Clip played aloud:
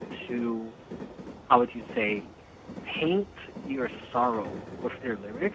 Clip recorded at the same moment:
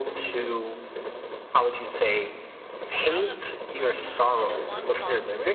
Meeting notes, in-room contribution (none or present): present